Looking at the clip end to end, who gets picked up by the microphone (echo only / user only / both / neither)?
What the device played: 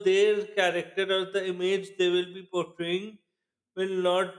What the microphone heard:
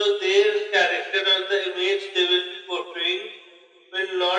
echo only